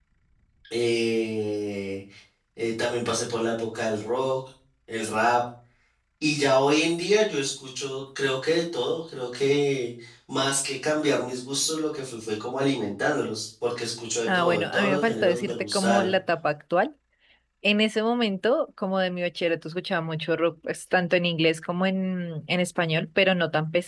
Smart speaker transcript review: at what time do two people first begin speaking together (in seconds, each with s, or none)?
14.3 s